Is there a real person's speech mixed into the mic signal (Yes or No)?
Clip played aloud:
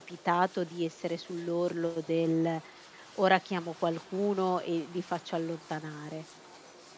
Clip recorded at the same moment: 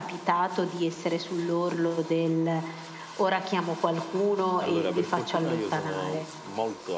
Yes